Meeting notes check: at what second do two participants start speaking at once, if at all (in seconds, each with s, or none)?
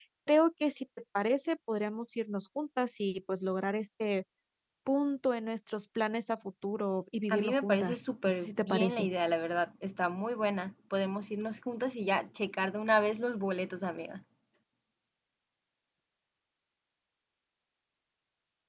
7.3 s